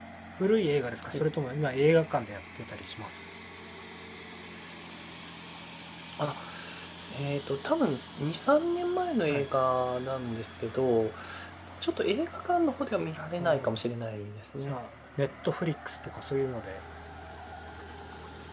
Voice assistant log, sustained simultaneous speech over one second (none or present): none